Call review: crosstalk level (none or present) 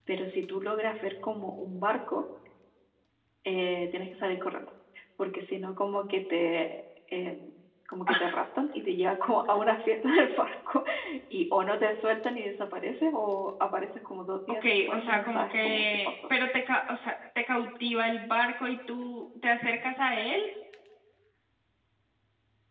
present